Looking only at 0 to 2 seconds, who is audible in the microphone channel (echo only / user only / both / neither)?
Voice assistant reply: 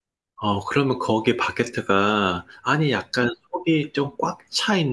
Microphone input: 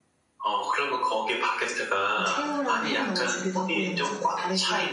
echo only